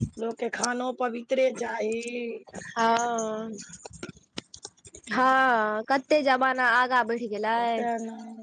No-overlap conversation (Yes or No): Yes